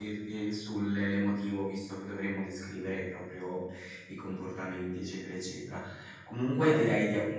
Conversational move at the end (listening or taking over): listening